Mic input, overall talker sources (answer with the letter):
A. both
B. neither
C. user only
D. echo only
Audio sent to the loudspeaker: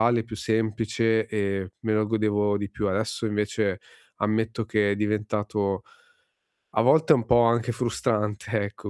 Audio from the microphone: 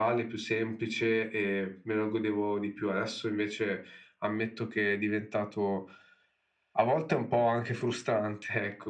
D